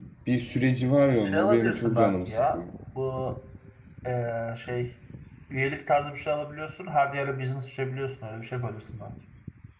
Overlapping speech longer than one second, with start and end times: 1.2-2.6

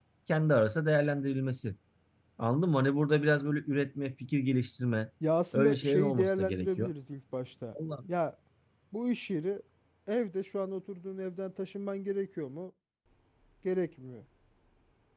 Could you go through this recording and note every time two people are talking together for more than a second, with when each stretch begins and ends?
5.5-6.9

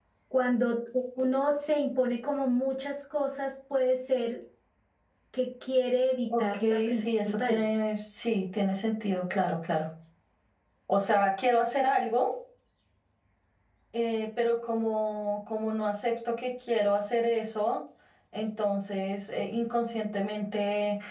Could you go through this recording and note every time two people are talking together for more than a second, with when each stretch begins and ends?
6.4-7.6

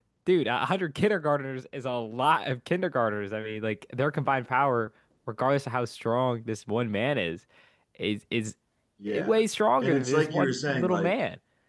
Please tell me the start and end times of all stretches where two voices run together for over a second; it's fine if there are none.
9.8-11.2

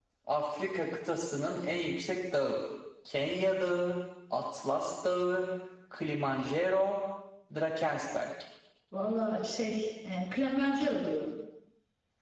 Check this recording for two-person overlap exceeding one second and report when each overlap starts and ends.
none

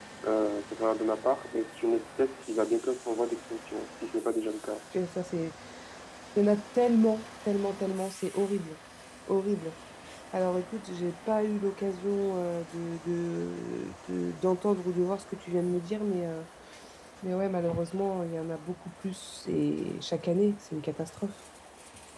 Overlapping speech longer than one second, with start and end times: none

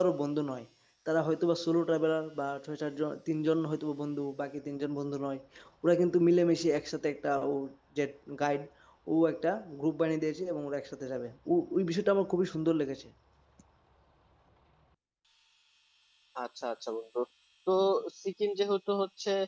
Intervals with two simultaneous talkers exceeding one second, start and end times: none

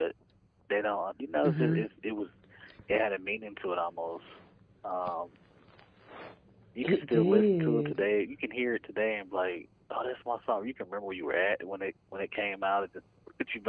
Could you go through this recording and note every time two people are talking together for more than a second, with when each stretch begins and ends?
6.8-8.1

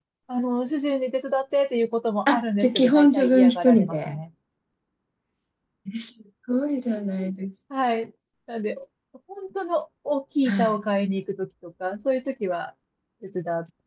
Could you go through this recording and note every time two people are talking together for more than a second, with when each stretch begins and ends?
2.3-4.2

